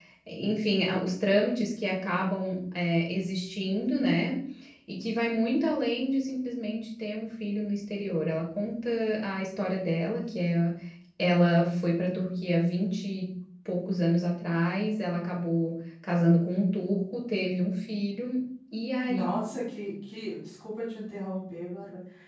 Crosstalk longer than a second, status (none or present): none